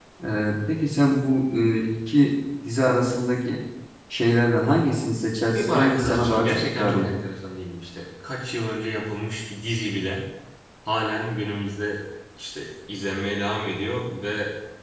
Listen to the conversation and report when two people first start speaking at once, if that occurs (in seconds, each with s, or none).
5.5 s